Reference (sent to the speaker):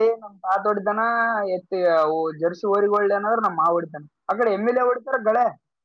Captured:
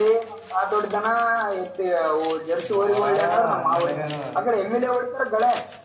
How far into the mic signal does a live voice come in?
3 s

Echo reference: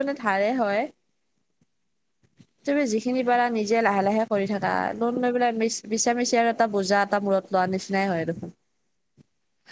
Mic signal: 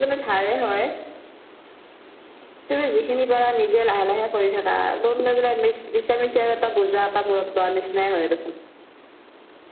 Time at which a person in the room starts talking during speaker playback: none

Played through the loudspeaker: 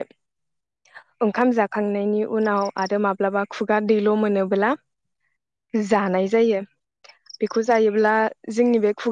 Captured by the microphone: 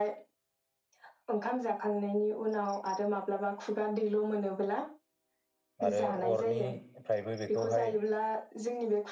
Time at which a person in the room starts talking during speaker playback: 6 s

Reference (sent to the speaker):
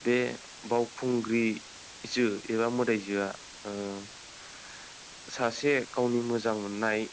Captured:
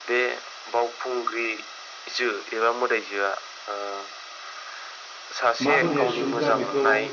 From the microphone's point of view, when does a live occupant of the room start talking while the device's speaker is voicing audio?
6 s

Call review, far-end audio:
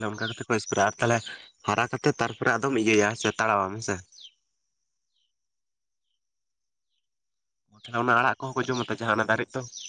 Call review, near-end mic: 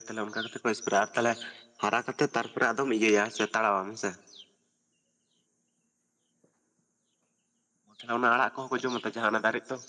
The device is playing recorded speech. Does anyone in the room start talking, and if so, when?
none

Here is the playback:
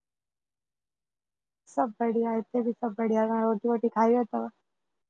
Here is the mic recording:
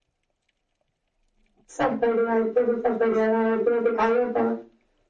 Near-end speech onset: none

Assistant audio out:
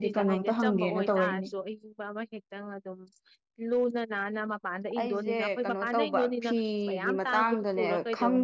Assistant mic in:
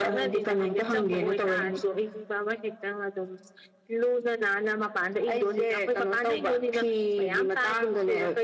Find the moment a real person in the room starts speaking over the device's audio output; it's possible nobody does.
none

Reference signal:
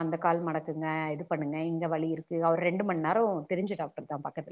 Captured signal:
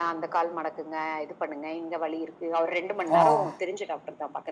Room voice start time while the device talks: 3 s

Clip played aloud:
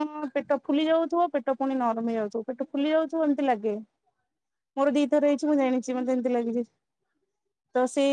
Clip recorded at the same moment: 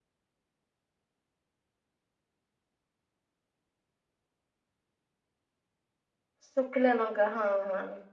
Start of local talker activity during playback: 6 s

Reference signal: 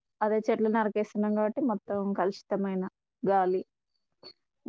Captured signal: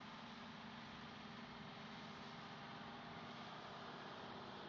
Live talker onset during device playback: none

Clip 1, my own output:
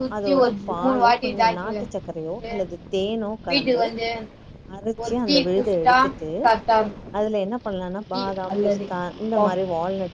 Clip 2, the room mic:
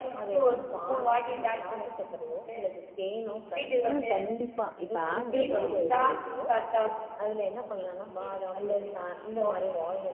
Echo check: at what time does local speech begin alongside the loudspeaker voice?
4 s

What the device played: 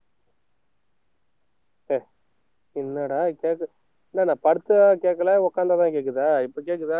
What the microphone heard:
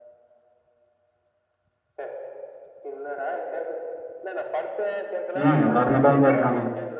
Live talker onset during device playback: 5 s

